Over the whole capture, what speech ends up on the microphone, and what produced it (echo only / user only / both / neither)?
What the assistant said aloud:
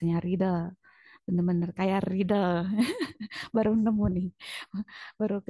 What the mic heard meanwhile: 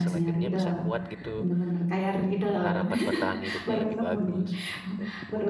both